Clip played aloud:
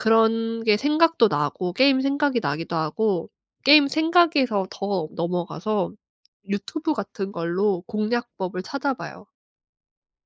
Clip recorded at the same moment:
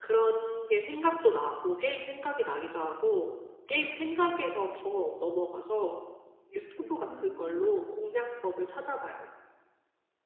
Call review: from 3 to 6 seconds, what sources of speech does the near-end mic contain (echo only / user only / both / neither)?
echo only